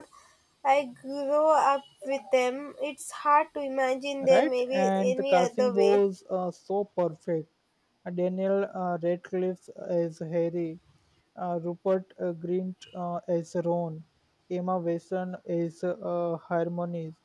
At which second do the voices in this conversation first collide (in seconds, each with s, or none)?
4.2 s